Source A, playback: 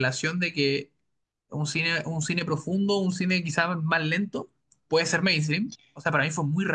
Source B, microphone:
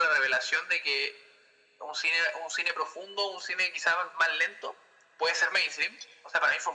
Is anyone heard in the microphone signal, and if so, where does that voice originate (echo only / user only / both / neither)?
echo only